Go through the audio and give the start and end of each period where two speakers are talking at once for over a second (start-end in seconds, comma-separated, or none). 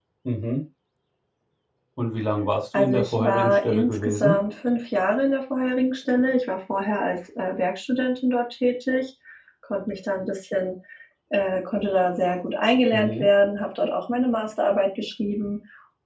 2.8-4.4